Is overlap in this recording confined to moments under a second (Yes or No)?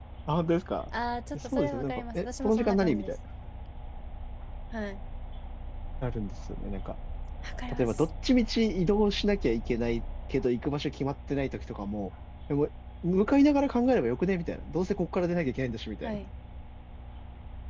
No